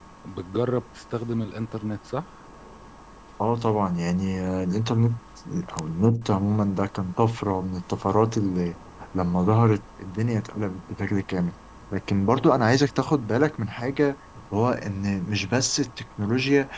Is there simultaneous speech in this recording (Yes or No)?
No